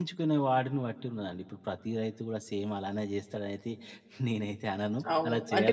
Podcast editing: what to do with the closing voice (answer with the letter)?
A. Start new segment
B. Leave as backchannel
A